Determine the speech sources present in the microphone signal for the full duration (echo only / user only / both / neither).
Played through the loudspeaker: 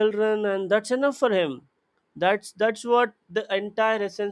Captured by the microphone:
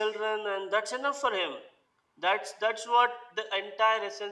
echo only